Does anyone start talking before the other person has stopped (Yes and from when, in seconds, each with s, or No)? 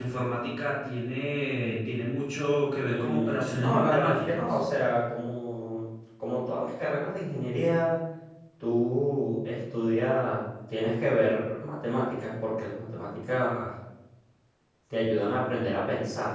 Yes, from 2.8 s